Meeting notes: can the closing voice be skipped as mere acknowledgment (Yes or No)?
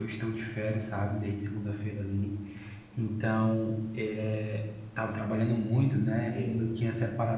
Yes